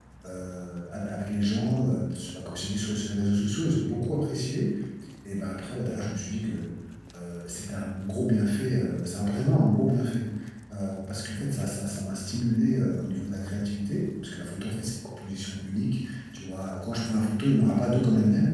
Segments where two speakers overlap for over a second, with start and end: none

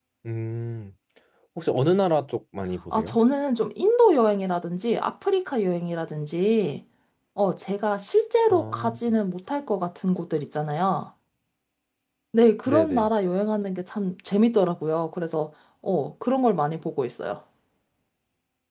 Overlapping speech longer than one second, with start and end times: none

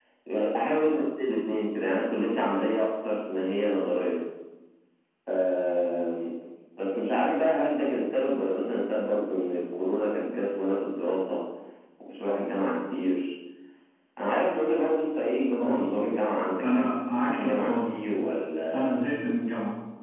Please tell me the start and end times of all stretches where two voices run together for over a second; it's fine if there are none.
16.6-18.1

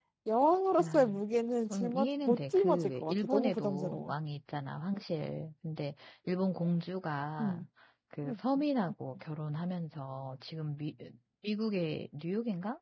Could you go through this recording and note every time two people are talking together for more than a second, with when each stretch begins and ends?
1.7-4.1

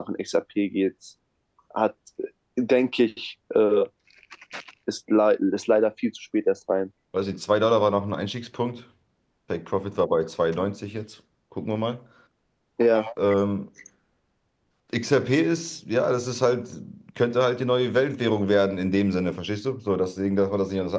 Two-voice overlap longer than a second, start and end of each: none

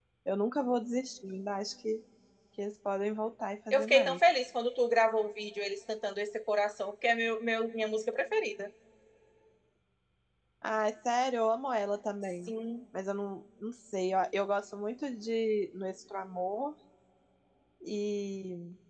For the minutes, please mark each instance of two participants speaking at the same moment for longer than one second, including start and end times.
none

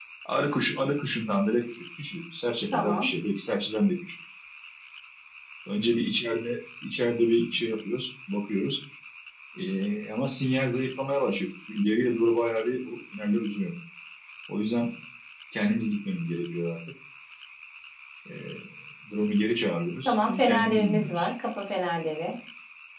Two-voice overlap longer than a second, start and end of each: 20.1-21.3

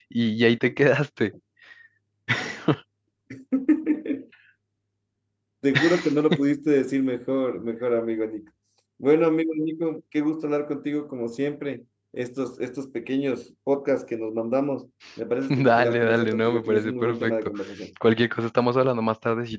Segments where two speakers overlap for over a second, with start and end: 15.5-17.5

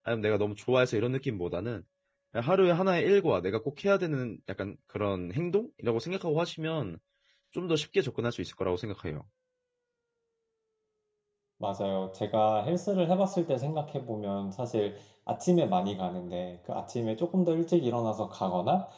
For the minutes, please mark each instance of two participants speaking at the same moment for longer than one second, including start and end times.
none

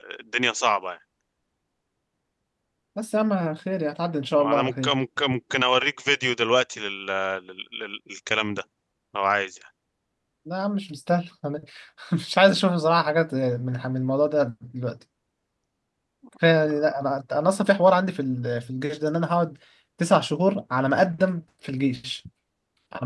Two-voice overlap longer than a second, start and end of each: none

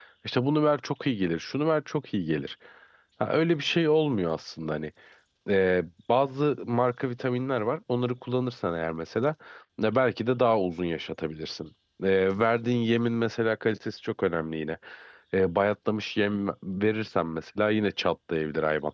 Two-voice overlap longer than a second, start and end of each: none

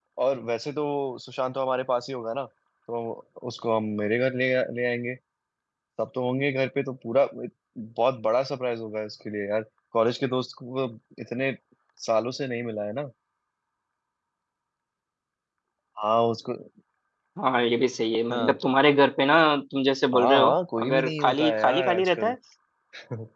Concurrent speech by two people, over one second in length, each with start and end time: 20.1-22.3

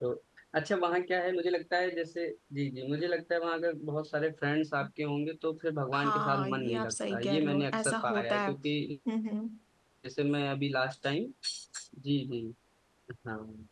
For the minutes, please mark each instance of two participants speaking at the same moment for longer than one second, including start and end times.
5.9-8.5

